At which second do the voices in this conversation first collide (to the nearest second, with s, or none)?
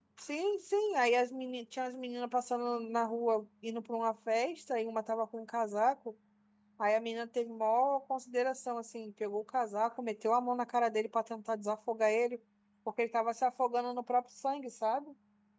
none